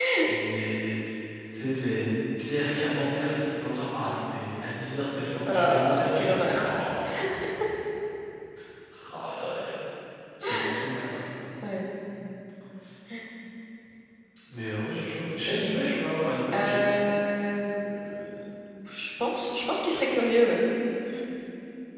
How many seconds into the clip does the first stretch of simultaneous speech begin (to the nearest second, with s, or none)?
5 s